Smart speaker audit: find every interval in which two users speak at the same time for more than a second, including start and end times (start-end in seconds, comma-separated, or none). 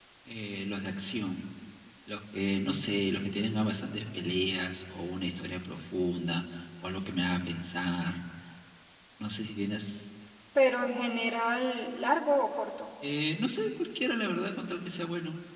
none